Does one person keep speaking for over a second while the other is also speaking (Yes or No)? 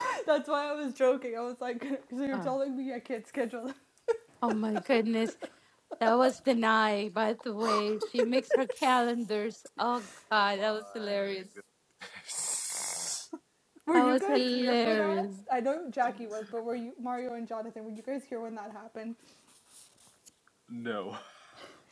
Yes